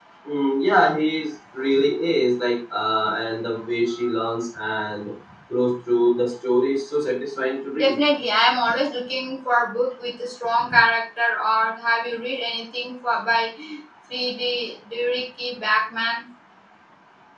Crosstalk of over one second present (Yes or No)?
No